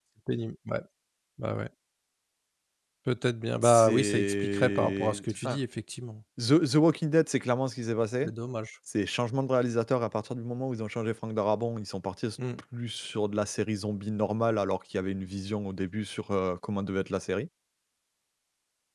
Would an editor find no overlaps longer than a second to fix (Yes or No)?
No